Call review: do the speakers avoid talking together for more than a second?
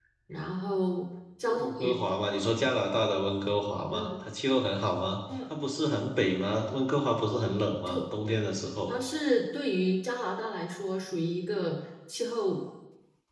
Yes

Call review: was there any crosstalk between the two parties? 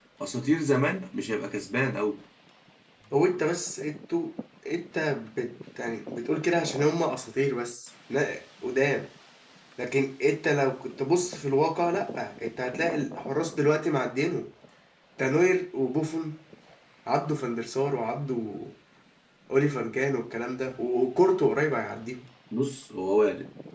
No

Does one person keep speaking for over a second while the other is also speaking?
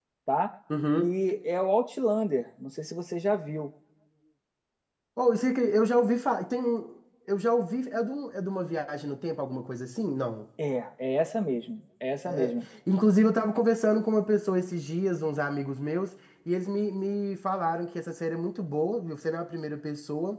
No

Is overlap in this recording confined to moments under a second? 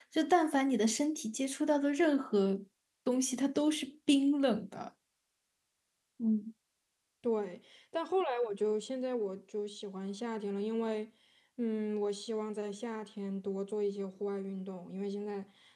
Yes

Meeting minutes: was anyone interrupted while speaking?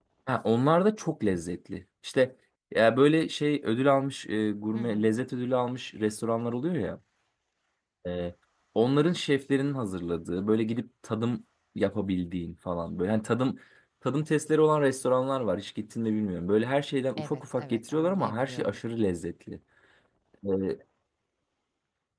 Yes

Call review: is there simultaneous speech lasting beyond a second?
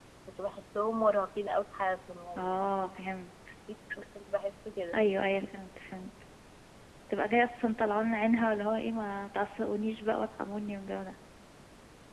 No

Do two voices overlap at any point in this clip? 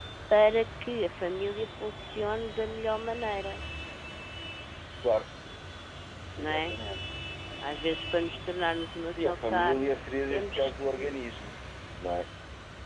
Yes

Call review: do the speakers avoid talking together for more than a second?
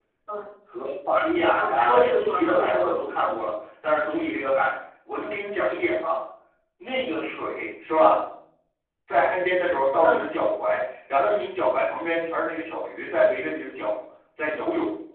No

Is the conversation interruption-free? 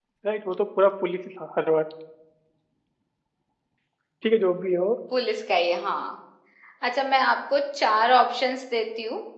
Yes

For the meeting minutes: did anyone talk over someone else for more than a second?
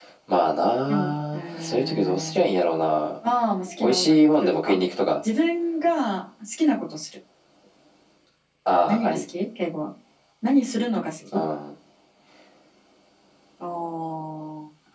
Yes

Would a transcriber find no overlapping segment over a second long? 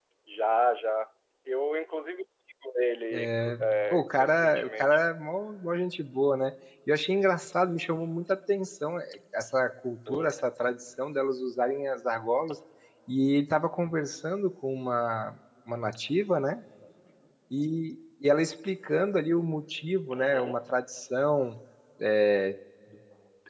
No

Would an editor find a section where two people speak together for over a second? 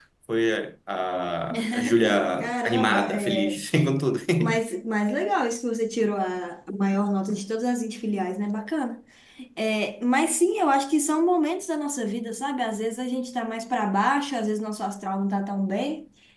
Yes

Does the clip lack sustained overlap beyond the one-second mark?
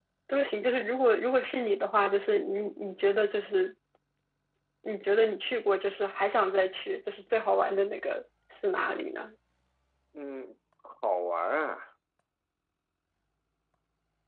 Yes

